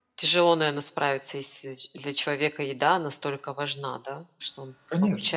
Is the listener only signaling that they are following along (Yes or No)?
No